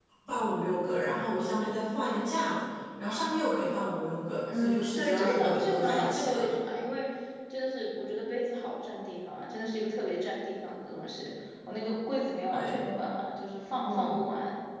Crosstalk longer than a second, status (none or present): present